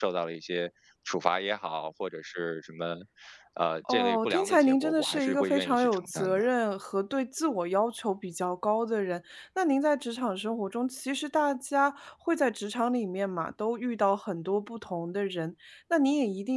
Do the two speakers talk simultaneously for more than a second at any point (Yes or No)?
Yes